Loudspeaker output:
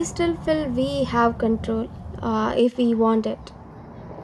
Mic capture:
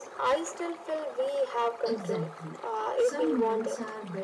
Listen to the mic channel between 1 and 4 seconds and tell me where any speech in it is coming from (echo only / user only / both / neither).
both